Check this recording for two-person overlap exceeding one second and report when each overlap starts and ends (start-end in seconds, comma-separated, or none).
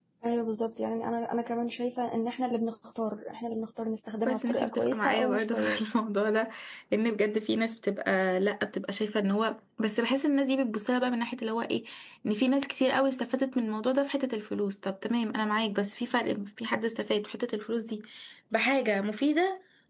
4.2-5.8